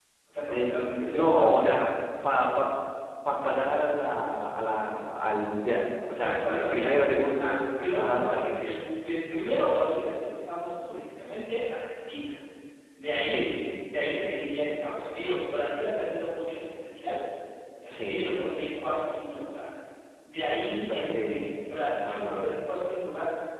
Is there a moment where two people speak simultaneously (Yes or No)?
Yes